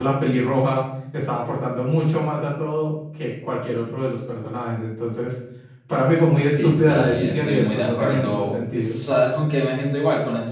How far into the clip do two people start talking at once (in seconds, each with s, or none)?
6.6 s